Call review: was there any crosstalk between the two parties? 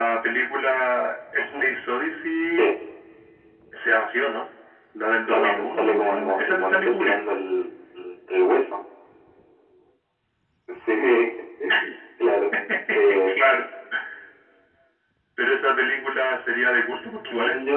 Yes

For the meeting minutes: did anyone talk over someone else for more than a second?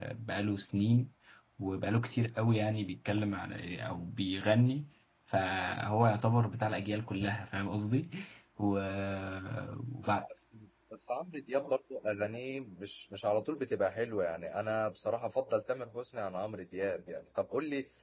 No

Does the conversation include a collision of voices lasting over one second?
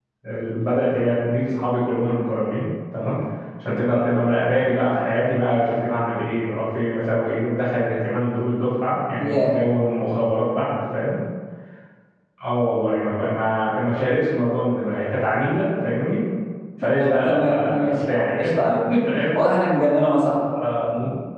Yes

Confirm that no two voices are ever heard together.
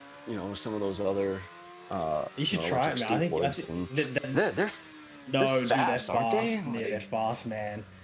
No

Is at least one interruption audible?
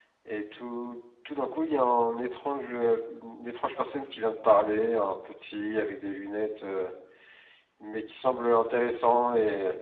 No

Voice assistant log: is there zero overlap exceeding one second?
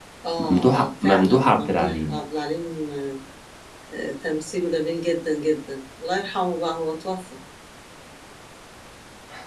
No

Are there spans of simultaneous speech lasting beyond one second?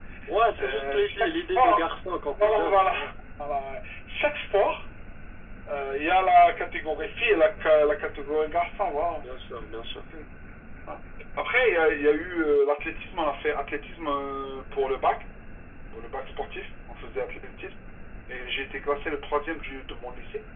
Yes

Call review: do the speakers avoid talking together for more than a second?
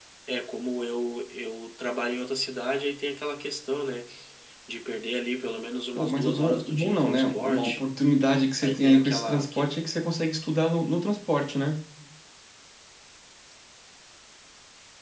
No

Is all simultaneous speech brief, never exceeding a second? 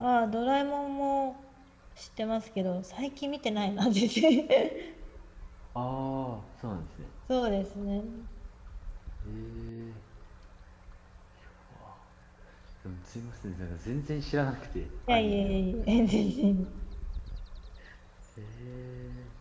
Yes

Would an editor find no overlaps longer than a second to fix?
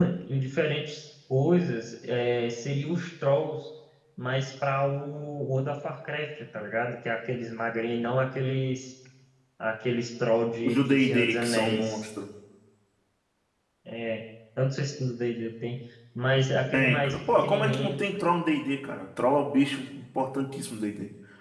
No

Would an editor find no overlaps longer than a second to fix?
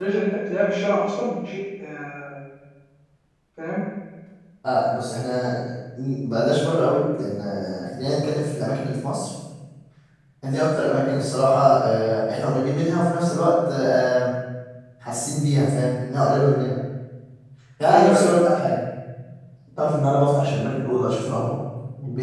Yes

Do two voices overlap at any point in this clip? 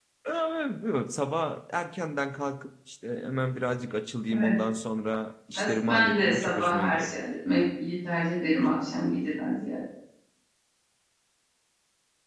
Yes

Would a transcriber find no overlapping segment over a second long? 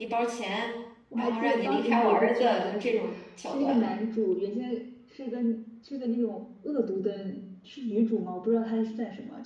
No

